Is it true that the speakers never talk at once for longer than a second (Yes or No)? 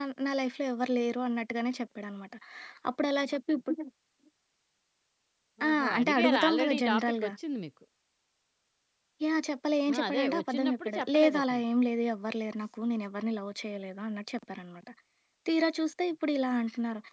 No